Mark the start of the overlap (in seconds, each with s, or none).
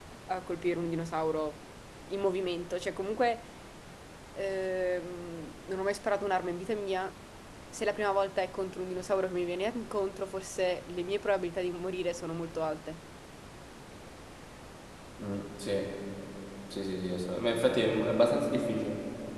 none